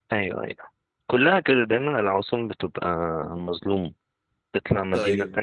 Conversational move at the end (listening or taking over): listening